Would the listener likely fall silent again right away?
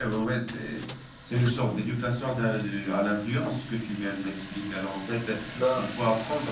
Yes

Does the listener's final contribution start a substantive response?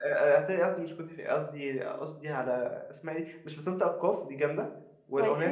No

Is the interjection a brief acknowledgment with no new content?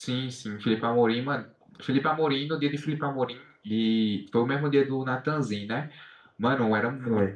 Yes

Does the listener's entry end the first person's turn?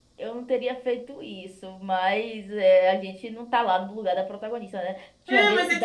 Yes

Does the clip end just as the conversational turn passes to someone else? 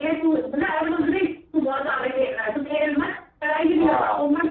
No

